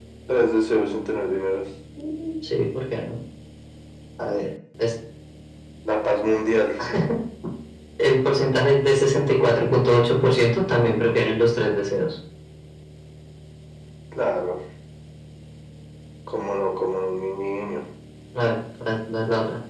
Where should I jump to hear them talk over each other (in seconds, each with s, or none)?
none